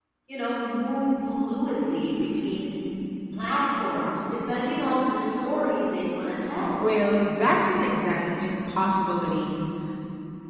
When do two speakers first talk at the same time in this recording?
none

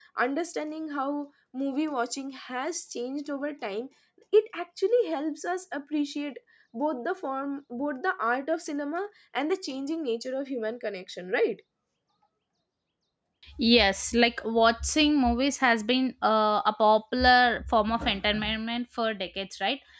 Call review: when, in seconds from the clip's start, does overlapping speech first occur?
none

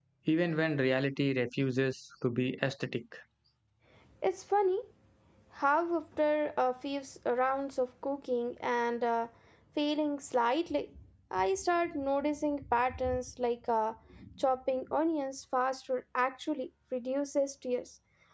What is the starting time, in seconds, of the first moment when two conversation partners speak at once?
none

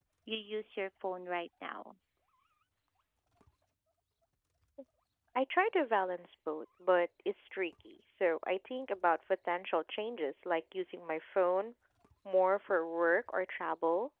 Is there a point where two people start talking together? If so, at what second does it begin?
none

